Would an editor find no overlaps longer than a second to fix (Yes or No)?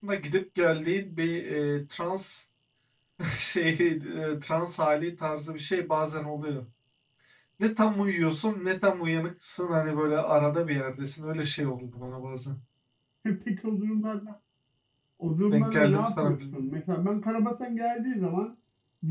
No